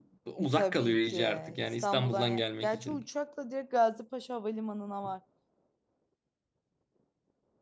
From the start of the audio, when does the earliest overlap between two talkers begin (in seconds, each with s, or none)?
0.6 s